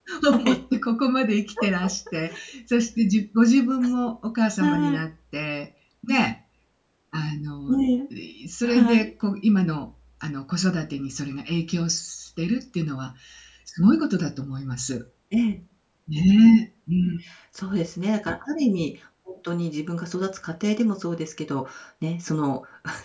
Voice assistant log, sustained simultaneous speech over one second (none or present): none